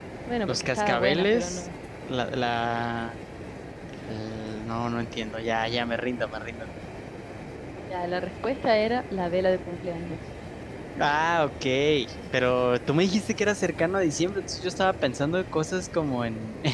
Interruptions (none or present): present